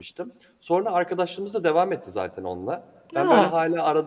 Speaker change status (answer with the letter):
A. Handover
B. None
B